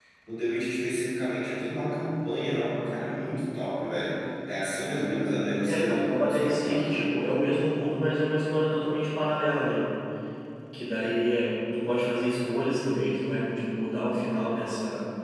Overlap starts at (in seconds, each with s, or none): 5.6 s